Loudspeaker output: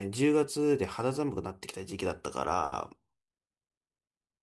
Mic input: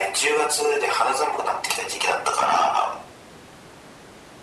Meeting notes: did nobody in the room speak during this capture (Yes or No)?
Yes